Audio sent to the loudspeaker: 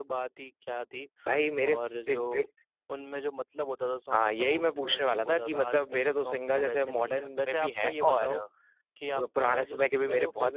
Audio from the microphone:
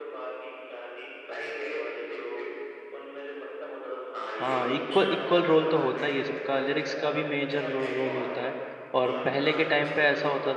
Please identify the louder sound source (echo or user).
user